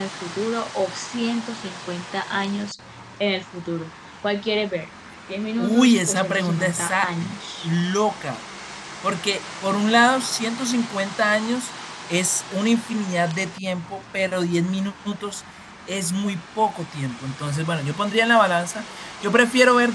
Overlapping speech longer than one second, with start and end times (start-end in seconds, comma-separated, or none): 5.6-7.1